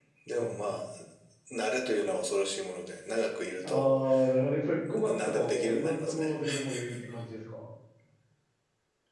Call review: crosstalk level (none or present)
present